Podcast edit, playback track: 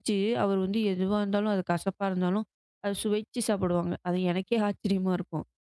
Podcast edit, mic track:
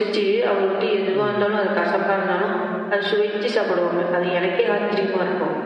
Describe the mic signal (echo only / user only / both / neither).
both